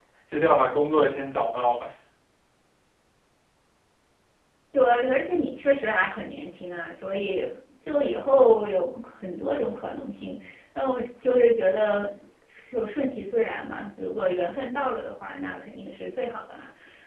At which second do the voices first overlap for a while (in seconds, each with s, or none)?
none